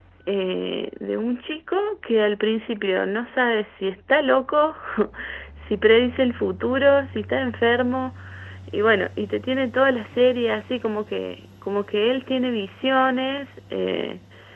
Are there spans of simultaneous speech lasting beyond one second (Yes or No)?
No